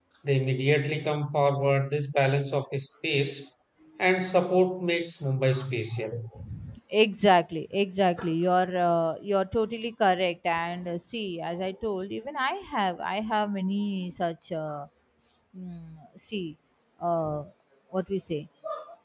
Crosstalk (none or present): none